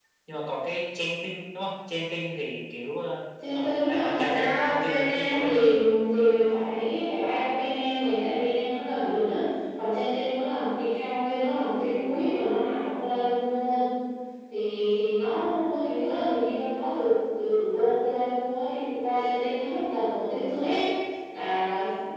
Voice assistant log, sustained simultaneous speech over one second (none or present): present